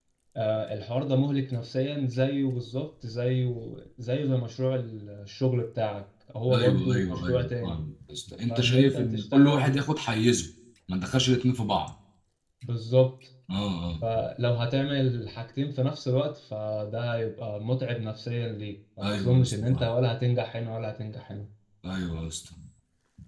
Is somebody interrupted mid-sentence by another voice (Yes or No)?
Yes